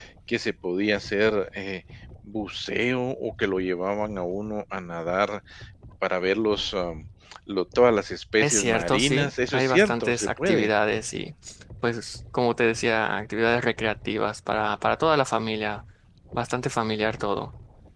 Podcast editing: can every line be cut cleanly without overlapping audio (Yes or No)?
No